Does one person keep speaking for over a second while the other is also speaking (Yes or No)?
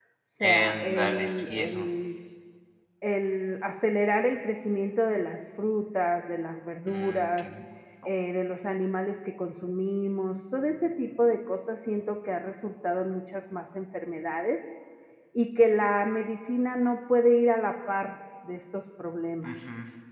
Yes